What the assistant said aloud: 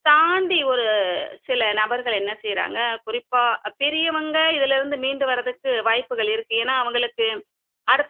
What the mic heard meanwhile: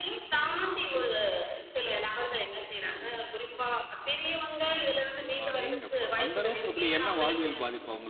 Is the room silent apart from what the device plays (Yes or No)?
No